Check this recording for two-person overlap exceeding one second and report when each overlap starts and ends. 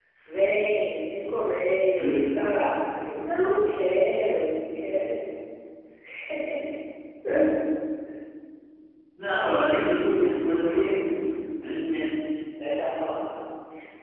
9.7-11.0

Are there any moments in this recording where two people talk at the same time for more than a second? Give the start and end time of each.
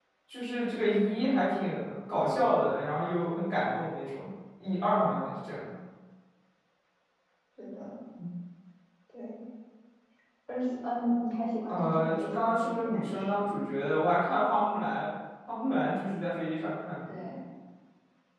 11.7-13.4

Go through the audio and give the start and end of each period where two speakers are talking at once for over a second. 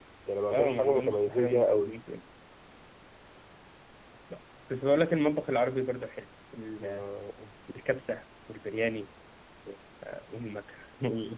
0.5-1.9

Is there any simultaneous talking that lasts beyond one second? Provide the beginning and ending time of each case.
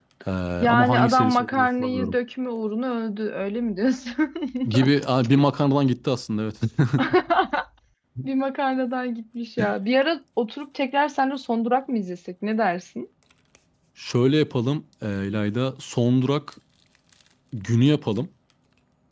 0.7-2.1

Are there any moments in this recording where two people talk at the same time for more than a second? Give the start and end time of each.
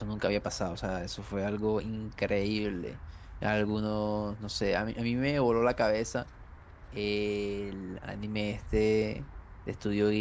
none

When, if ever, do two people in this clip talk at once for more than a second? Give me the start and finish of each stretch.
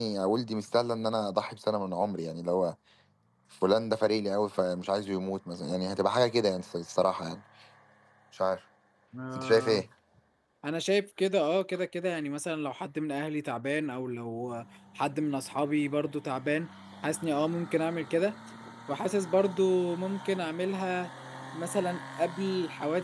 none

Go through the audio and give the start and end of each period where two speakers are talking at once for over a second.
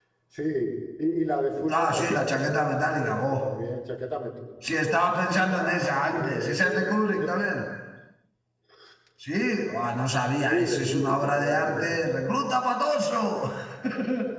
1.8-3.4, 5.3-7.3, 10.4-12.1

